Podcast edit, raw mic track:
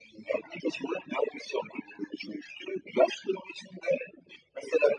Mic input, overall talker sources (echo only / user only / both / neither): echo only